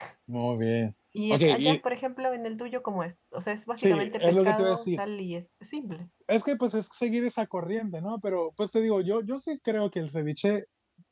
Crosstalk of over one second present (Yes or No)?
Yes